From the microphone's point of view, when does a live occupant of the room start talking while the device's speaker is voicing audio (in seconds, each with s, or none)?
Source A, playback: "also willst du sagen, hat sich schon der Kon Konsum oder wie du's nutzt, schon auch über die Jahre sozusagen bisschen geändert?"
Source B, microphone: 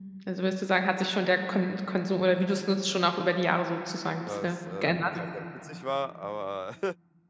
4.2 s